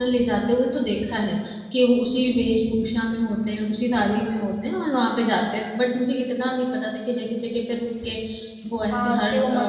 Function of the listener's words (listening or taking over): taking over